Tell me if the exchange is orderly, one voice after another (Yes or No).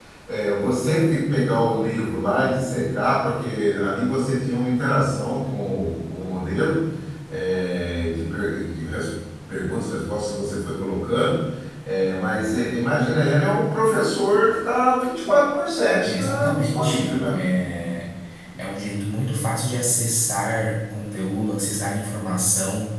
No